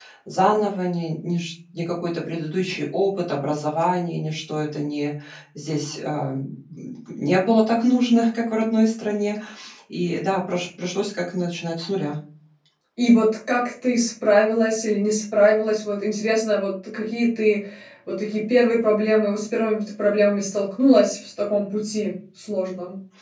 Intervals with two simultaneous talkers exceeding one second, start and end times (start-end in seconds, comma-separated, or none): none